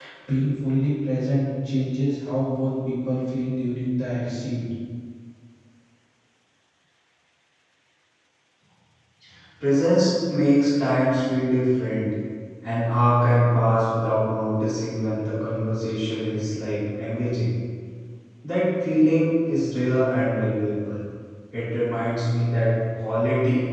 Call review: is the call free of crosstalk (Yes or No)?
Yes